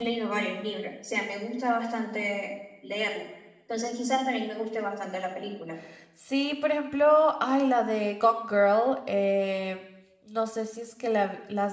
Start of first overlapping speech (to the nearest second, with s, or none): none